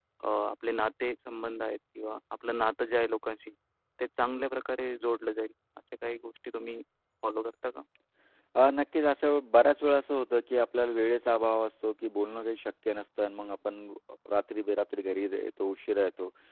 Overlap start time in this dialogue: none

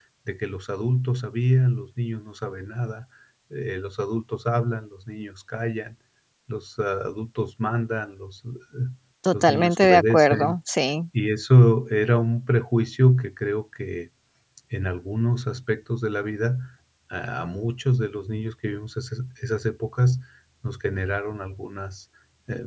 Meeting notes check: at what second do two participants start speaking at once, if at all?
9.3 s

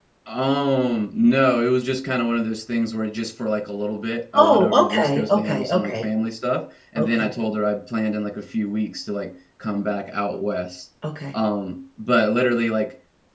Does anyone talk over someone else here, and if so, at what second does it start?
4.3 s

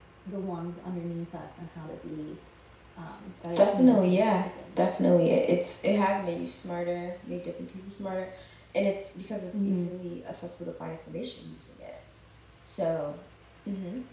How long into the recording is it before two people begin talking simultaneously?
3.6 s

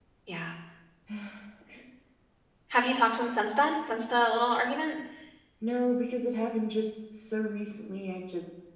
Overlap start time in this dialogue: none

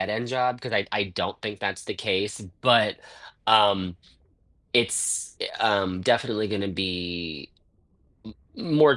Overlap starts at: none

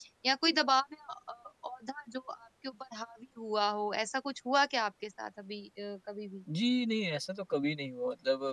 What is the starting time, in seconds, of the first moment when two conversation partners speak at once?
none

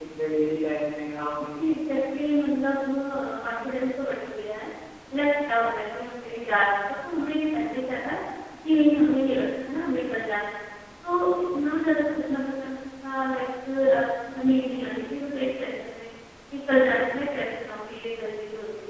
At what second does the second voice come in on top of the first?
none

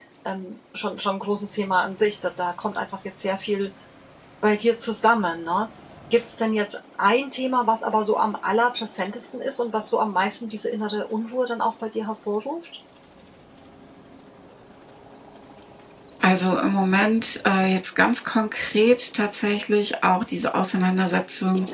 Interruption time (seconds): none

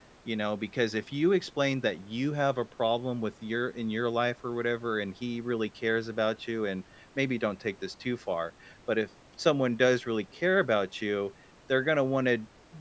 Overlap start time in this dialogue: none

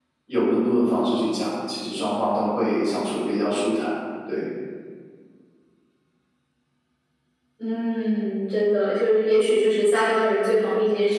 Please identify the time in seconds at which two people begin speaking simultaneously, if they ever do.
none

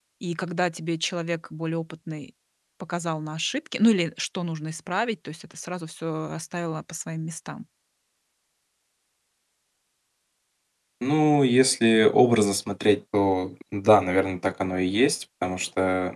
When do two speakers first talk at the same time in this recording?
none

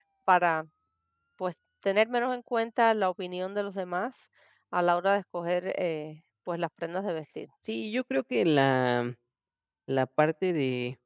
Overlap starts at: none

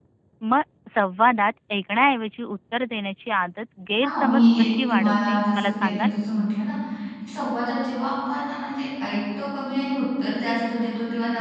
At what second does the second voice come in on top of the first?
4.0 s

